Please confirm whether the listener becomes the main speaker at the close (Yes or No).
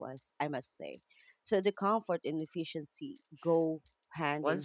Yes